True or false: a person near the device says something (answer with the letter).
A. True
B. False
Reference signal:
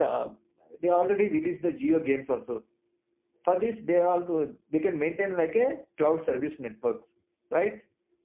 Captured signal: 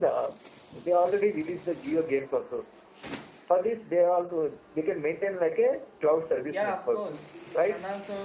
A